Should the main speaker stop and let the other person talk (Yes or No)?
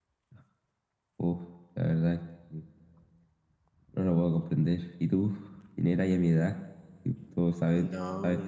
Yes